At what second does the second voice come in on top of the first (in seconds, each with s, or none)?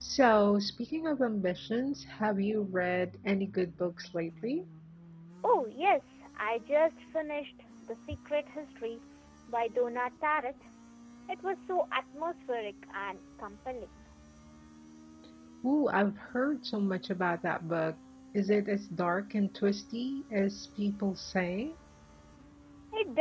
none